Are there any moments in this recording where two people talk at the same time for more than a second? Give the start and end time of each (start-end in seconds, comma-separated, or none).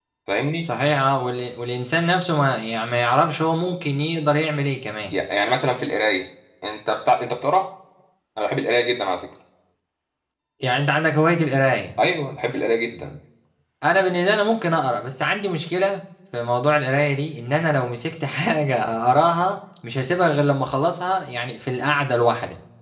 none